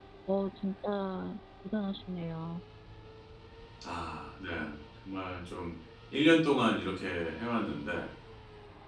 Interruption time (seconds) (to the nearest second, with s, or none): none